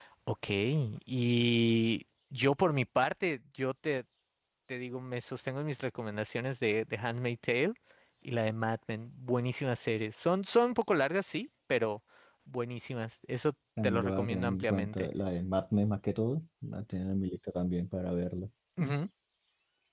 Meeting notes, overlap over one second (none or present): present